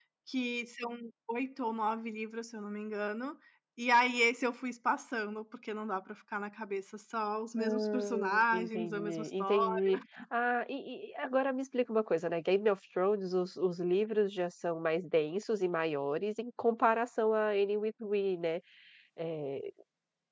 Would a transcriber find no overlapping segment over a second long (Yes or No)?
No